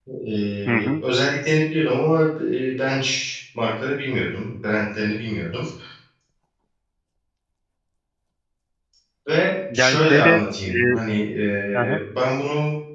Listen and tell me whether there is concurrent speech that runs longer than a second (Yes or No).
Yes